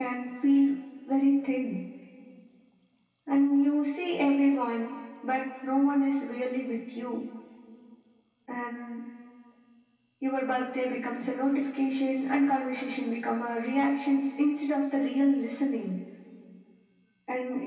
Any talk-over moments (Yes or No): No